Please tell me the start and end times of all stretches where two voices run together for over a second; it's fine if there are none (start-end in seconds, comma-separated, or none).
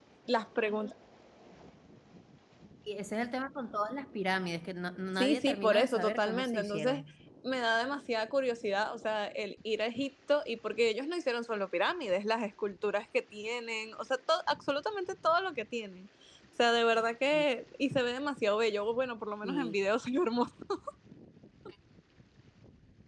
5.2-7.0